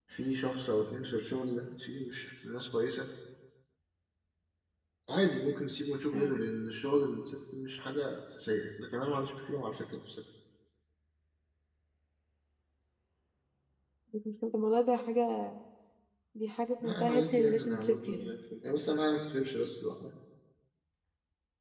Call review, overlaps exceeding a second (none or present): present